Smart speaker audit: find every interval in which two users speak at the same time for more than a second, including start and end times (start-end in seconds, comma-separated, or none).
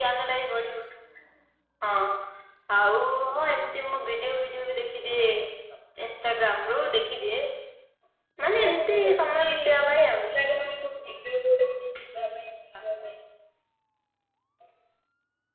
8.5-10.3